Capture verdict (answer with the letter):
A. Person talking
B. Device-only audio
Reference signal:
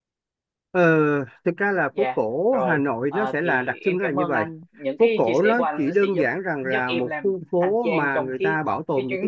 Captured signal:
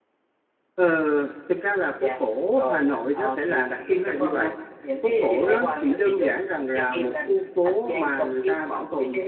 A